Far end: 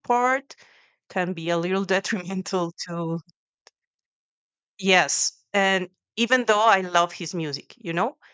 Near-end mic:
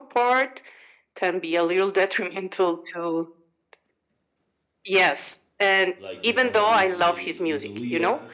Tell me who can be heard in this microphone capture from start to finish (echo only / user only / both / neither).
both